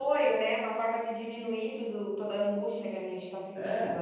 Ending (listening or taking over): taking over